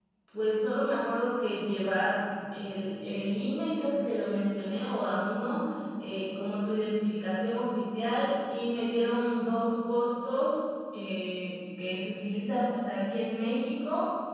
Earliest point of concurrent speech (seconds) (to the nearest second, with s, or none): none